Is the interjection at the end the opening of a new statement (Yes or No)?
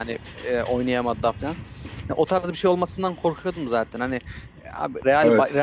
No